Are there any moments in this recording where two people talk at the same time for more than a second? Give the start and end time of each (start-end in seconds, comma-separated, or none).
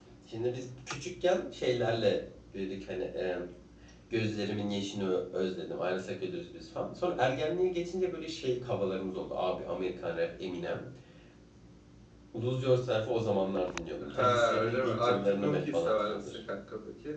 14.0-16.4